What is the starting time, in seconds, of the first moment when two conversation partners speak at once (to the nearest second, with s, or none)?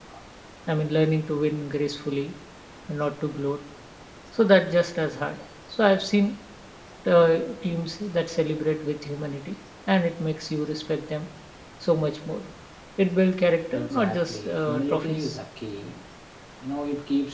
14 s